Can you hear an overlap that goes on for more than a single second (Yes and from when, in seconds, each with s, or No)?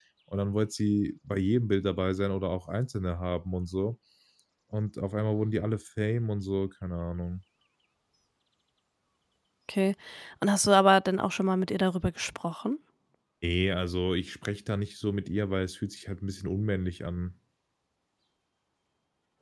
No